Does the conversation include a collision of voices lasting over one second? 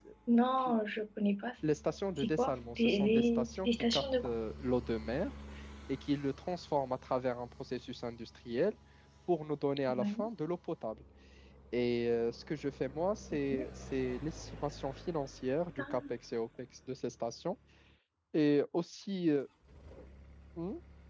Yes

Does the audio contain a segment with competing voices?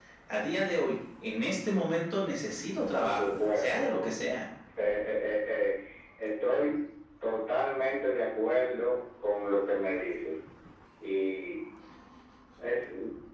Yes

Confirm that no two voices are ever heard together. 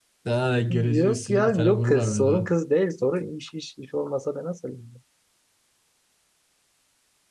No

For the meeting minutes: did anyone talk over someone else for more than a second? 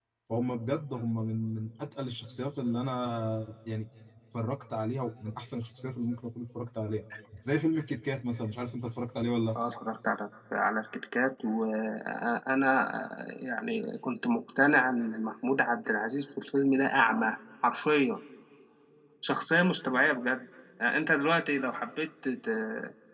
No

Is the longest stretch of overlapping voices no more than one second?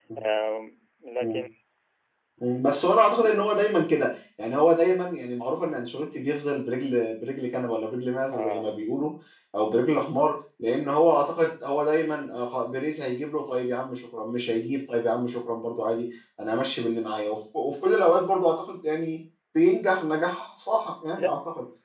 Yes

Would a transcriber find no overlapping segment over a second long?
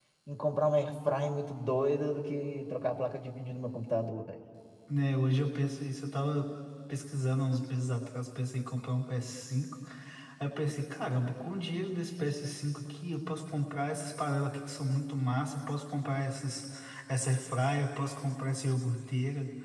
Yes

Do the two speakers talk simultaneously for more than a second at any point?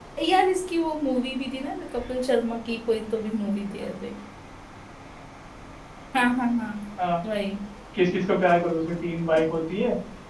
No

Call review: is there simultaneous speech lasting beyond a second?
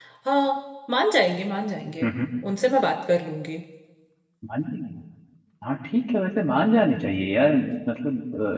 No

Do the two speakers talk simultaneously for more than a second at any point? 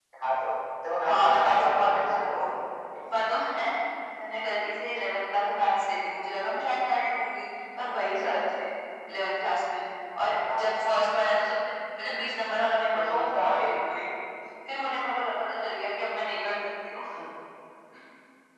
Yes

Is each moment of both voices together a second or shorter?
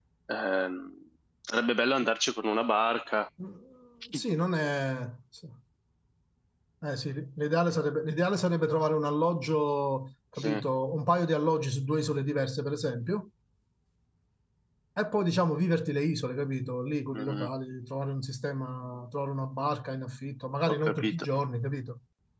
Yes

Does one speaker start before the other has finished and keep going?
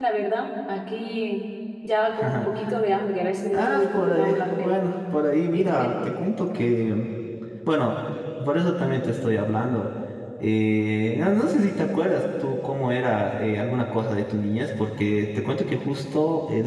Yes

